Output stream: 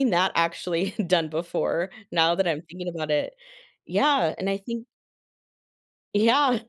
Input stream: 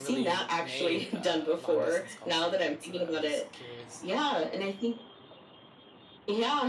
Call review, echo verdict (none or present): present